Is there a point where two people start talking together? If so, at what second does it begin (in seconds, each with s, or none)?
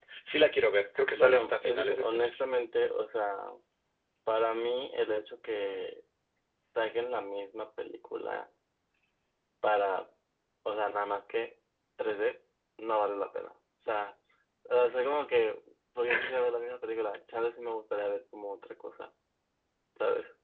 1.1 s